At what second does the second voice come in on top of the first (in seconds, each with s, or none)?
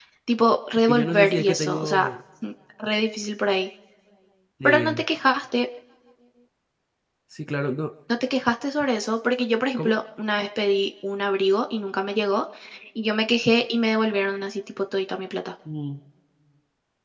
0.9 s